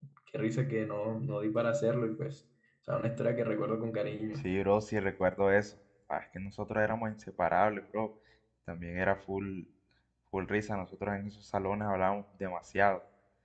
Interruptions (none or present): none